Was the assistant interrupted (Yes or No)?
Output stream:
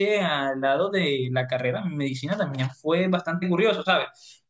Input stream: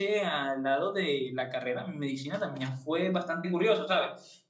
No